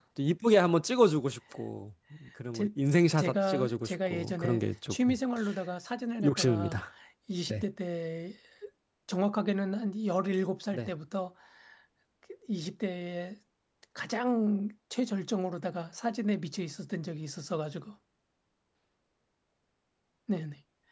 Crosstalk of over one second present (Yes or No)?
Yes